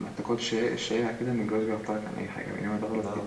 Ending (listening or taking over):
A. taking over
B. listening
A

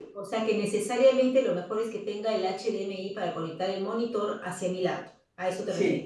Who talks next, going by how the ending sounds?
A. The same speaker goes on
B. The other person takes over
B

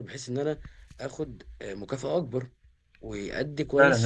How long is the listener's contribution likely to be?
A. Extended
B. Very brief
A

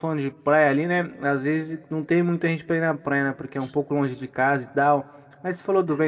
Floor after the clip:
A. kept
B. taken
A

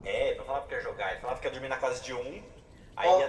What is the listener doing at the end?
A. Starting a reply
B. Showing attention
B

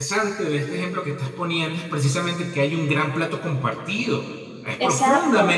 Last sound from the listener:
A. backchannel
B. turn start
B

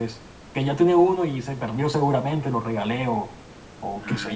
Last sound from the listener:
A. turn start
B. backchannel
A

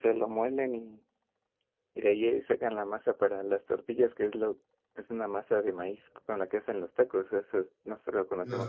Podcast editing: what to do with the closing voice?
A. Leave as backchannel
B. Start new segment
B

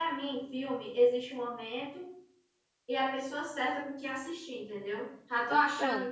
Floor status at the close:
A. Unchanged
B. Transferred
A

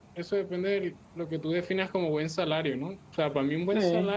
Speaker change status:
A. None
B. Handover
A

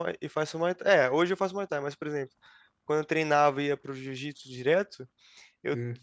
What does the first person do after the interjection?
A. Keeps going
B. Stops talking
A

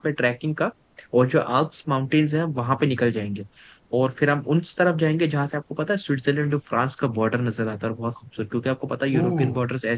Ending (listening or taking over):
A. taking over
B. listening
B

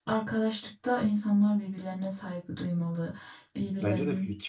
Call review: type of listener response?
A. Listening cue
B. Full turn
B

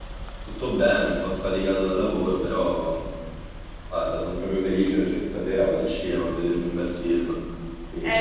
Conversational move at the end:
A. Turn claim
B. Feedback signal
A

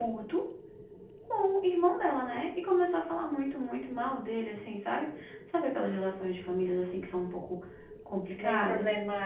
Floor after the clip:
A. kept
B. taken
B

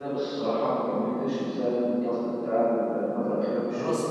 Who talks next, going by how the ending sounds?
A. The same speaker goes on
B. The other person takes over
B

